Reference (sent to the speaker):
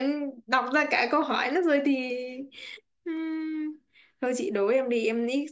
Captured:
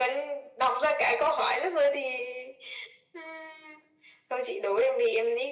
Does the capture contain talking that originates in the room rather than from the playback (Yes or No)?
No